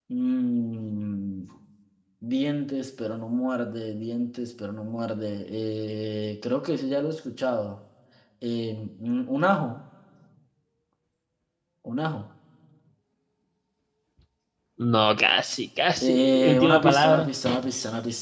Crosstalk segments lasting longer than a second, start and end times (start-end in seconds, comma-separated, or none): 16.0-17.3